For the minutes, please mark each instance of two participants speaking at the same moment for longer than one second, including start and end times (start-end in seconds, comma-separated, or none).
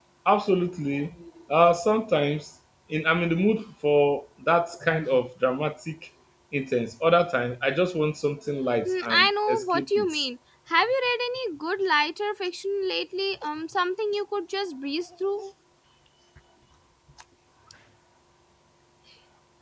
8.8-10.1